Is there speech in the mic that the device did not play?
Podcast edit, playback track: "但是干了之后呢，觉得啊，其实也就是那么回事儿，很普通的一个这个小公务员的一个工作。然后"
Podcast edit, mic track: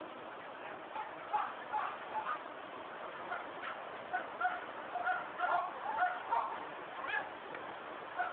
No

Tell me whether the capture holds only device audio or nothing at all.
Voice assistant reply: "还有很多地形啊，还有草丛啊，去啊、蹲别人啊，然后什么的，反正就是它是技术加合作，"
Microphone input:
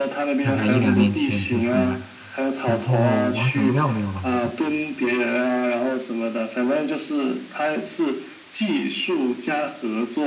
No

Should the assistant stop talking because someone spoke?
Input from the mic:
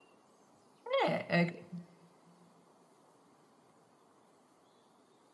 Yes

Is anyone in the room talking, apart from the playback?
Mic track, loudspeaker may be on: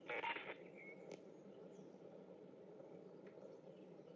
No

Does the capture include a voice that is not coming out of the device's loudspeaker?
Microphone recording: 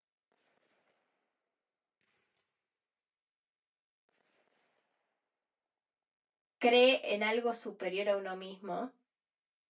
Yes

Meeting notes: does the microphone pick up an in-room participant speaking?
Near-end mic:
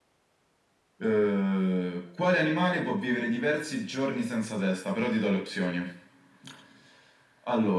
No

